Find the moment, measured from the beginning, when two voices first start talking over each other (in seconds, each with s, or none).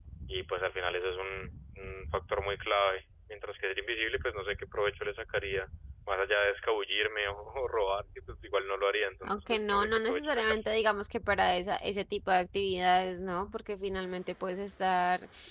9.2 s